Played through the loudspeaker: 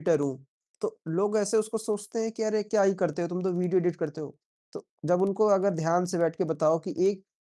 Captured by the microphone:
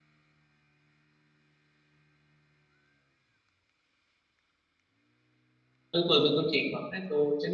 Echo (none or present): none